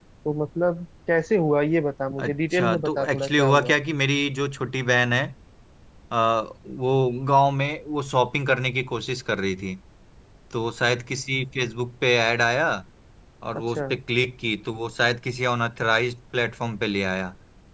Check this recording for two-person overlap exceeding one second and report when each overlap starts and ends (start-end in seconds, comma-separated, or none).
2.2-3.8